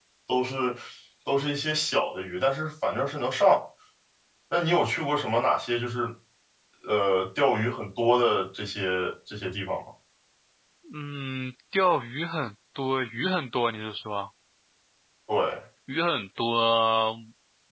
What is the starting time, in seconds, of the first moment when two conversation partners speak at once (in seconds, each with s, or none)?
none